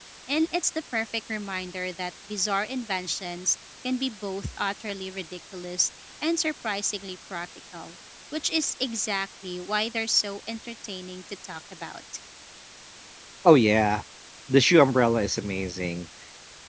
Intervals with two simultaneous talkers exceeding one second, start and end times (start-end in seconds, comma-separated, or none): none